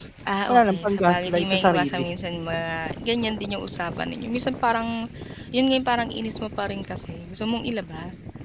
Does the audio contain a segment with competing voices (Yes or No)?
Yes